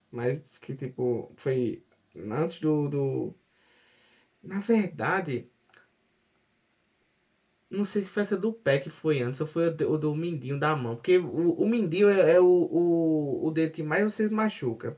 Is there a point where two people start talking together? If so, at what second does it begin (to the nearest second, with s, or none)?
none